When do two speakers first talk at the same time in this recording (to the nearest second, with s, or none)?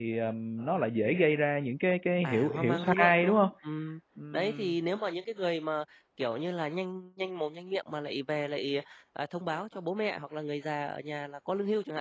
2 s